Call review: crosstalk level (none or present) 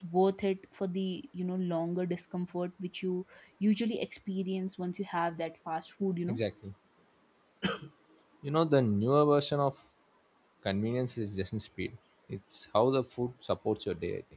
none